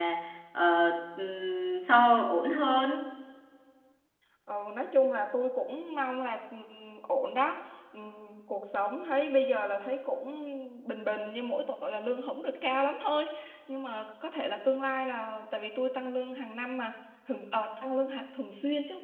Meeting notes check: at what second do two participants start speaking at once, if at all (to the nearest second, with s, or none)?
none